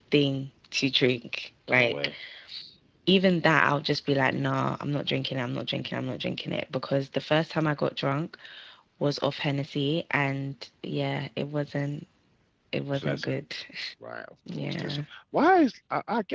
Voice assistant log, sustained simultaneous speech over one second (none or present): none